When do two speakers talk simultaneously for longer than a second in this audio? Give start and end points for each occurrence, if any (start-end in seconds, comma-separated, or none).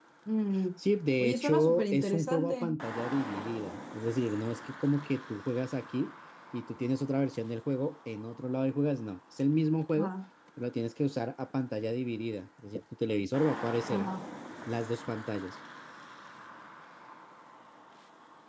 1.2-2.8